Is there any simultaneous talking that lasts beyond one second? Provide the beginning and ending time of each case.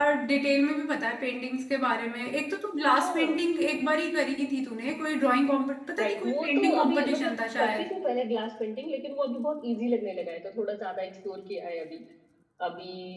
6.0-7.9

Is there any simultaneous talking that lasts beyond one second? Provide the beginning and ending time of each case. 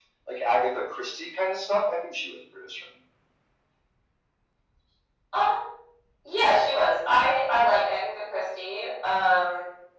none

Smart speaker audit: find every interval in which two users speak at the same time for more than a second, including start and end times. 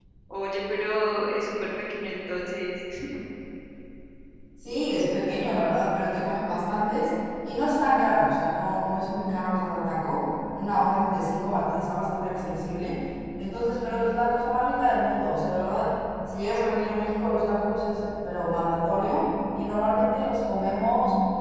none

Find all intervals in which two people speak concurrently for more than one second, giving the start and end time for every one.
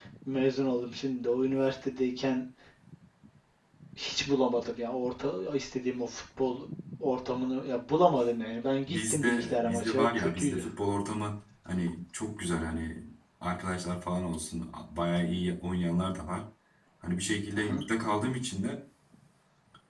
8.9-10.6

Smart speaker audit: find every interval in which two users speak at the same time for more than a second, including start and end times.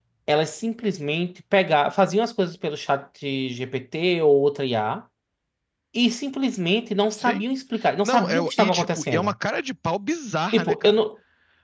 8.0-9.3

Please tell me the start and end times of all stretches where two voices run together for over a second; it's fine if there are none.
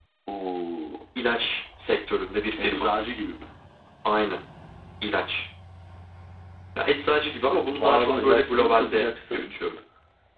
7.4-9.5

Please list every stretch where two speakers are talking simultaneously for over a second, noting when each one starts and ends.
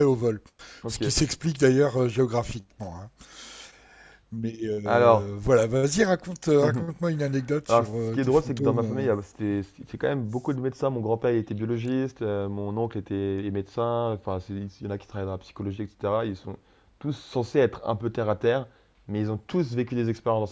7.7-9.1

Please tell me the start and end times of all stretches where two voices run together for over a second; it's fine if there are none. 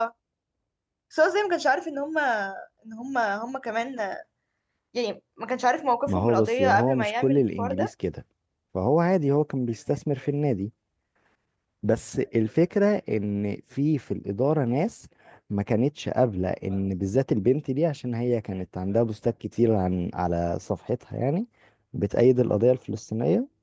6.1-7.9

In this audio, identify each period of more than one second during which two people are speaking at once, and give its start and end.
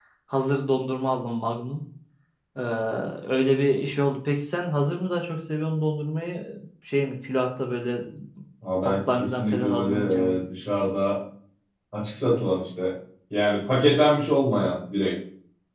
8.8-10.4

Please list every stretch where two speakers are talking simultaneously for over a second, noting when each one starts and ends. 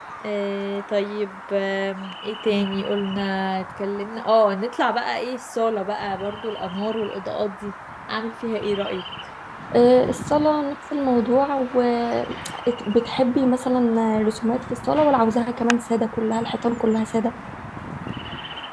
none

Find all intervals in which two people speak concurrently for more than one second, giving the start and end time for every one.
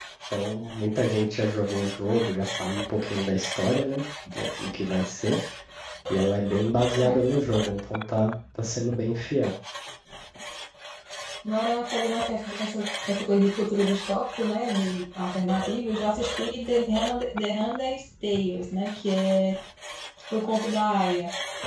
none

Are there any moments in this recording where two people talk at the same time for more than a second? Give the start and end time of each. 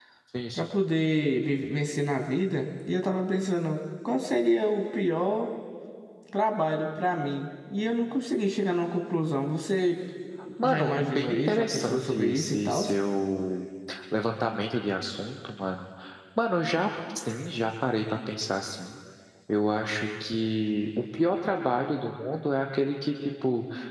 10.6-12.8

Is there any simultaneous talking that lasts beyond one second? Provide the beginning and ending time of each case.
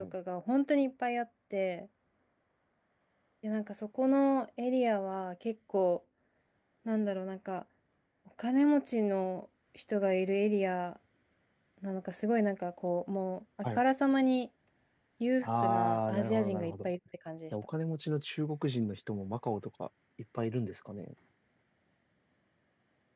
15.4-16.8

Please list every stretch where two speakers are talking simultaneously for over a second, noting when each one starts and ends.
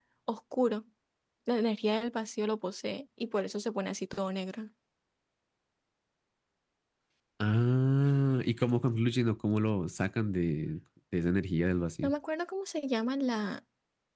none

